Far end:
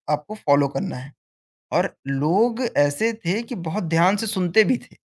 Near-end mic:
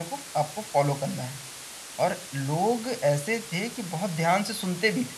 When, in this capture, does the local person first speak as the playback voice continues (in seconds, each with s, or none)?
none